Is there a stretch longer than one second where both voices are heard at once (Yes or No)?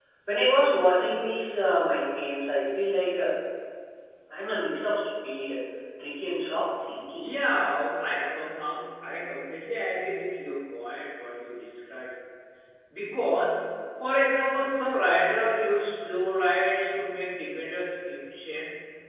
No